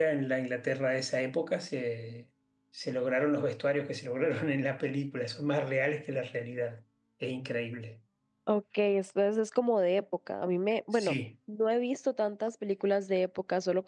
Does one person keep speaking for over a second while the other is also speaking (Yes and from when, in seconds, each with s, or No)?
No